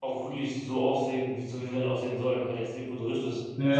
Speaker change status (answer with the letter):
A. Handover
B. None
A